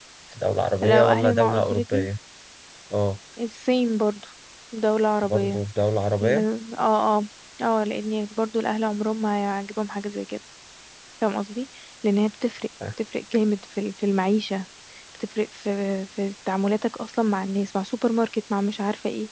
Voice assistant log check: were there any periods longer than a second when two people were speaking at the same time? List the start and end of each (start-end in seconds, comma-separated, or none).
0.8-2.1